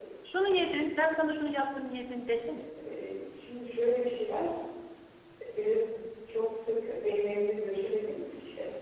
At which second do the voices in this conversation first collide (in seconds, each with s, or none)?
none